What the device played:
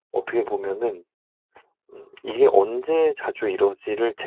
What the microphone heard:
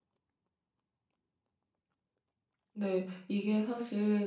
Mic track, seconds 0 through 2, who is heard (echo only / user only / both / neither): neither